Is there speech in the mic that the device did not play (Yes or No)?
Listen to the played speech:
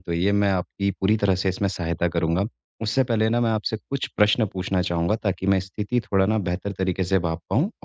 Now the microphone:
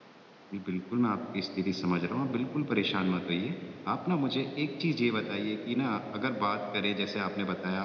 Yes